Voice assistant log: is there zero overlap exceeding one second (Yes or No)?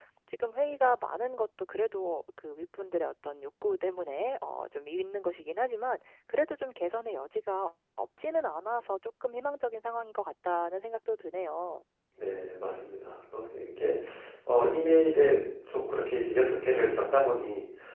Yes